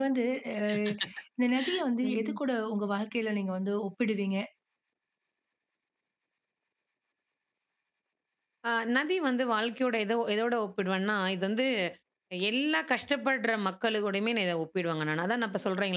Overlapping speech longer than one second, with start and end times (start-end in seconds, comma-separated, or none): none